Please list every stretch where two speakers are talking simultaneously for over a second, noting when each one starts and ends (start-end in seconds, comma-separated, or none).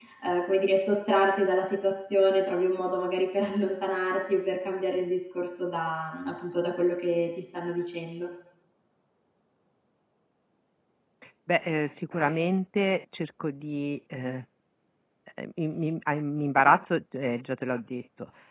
none